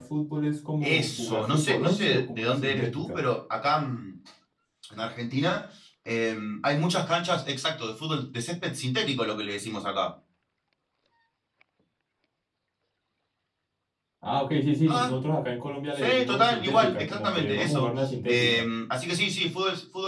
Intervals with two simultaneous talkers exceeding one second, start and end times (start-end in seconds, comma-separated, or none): 0.8-3.2, 15.9-18.6